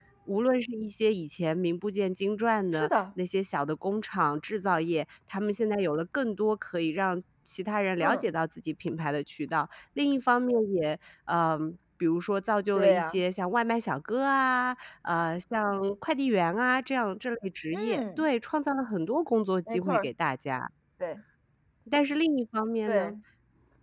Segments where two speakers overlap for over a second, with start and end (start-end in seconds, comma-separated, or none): none